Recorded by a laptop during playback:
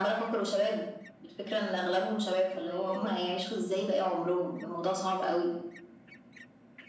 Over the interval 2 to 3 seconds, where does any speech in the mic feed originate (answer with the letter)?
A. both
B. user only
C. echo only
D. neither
A